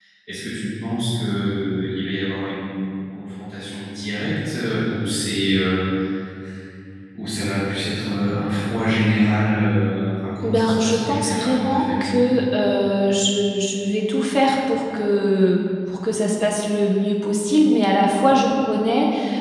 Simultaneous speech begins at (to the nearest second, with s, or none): 10 s